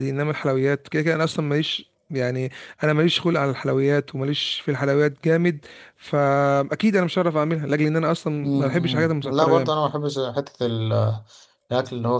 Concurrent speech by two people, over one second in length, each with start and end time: 8.4-9.7

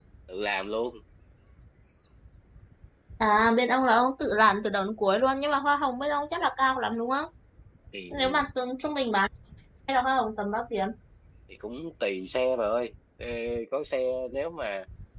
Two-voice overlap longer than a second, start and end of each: none

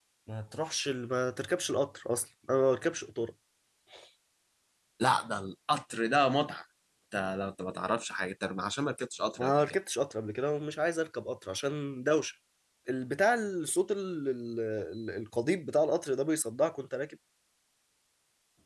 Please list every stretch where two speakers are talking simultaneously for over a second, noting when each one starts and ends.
none

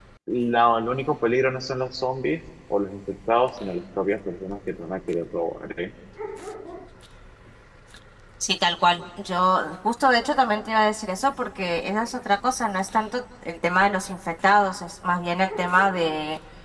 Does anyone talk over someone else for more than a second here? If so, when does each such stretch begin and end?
none

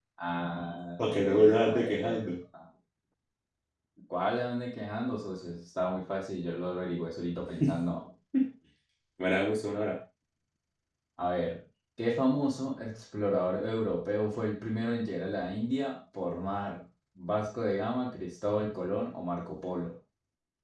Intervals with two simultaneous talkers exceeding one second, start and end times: 1.0-2.3

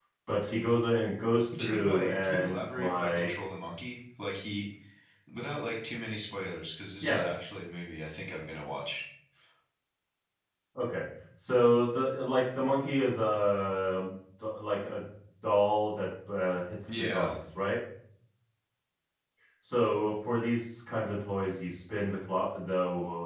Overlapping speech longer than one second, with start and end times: 1.6-3.3

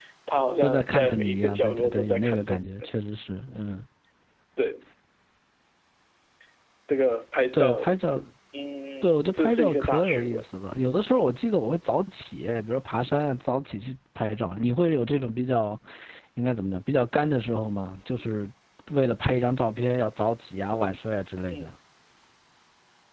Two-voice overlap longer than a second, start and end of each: 0.6-2.9, 9.0-10.4

